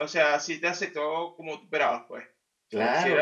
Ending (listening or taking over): taking over